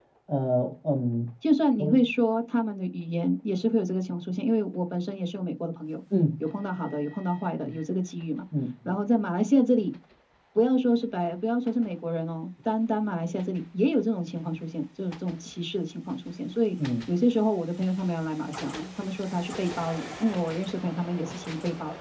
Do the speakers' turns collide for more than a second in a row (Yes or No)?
No